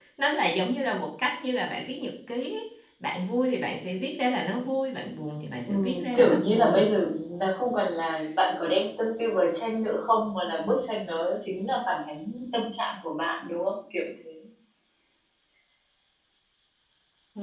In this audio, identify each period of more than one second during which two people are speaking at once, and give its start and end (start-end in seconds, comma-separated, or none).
5.7-6.9